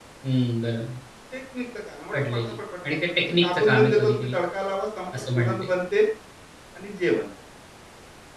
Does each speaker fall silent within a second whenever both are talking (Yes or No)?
No